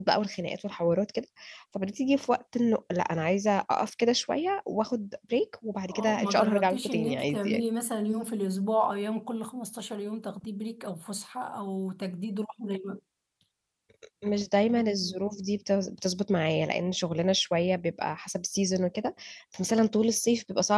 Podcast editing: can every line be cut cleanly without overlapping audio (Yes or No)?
No